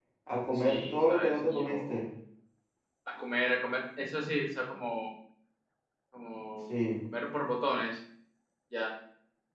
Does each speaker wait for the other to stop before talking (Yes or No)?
No